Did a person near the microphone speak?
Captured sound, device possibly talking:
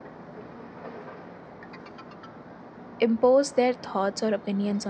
Yes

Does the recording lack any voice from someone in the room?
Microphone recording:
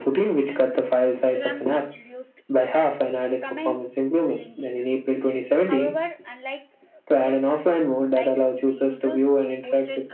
No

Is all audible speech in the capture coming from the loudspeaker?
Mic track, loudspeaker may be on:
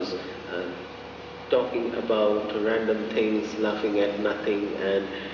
Yes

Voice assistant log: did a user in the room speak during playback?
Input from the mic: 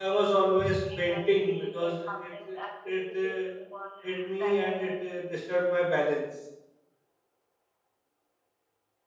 Yes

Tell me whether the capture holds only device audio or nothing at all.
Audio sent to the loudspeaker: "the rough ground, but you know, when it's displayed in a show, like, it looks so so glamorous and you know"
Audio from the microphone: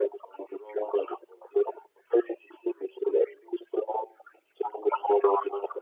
Yes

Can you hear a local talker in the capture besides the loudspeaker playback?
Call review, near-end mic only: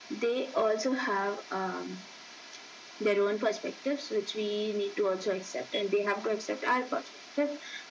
No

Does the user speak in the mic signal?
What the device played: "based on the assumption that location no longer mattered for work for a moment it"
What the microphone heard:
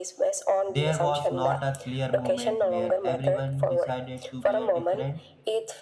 Yes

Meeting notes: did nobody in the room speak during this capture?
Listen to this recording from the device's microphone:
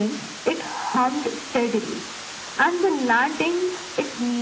Yes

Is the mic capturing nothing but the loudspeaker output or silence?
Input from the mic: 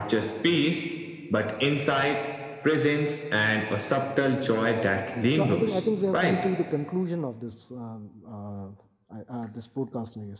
No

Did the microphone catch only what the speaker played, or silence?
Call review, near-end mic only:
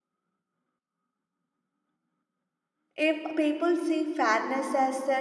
No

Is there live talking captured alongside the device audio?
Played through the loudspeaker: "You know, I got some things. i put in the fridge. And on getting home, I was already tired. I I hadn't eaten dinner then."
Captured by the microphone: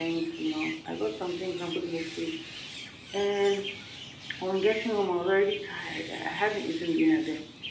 No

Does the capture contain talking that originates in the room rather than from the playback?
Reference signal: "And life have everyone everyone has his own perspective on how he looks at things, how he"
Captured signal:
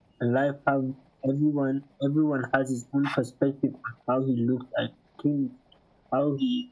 No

